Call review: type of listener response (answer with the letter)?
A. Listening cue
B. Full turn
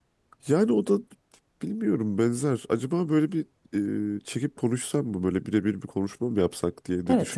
B